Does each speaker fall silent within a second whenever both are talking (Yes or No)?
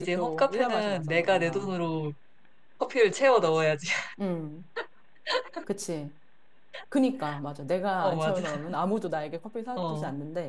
No